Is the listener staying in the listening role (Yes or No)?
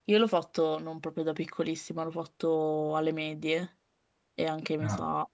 Yes